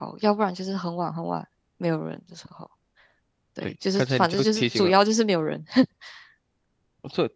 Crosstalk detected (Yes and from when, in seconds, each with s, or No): Yes, from 3.6 s